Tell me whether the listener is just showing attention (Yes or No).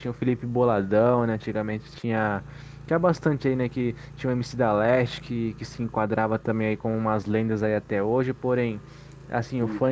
Yes